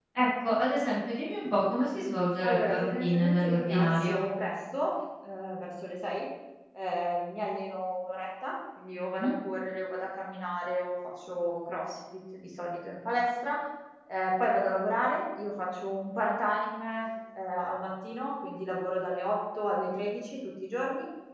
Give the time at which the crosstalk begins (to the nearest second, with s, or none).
2 s